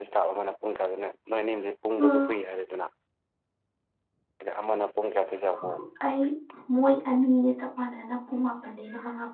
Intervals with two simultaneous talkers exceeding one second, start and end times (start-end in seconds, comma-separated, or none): none